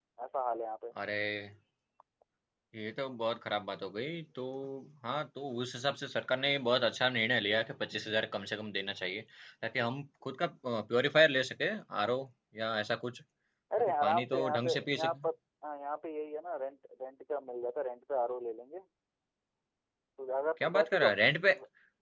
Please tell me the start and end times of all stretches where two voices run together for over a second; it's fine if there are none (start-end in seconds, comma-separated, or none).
13.8-15.2